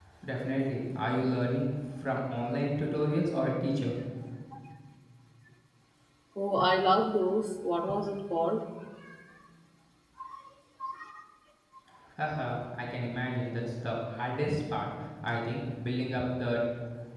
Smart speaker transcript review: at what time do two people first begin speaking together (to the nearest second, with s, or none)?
none